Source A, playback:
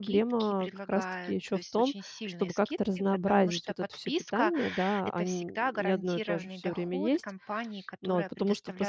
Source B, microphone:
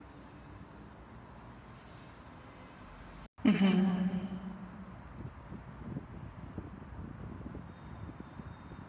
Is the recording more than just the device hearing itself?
Yes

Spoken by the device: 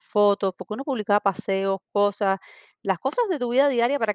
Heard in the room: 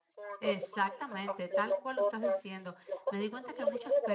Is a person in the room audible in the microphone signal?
Yes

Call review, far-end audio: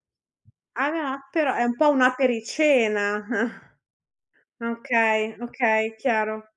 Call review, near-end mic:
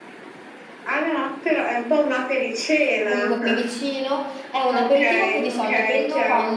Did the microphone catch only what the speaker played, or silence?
No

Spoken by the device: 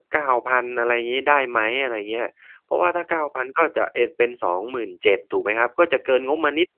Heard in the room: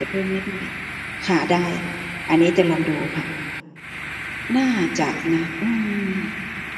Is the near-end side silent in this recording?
No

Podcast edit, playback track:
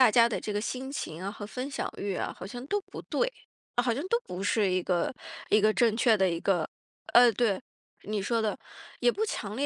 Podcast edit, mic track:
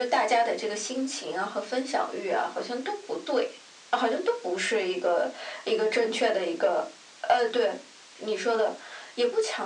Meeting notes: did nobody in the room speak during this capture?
Yes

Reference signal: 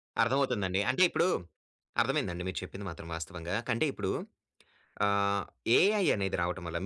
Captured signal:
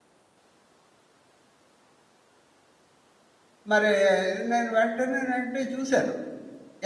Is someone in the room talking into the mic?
Yes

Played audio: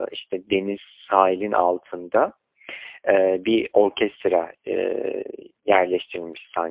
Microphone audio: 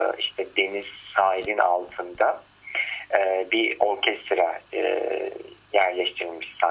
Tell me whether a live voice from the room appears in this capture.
No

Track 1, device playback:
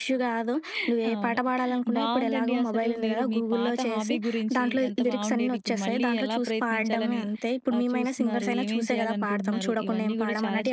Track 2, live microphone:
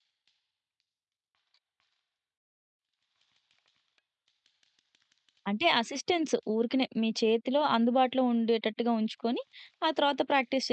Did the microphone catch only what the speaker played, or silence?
No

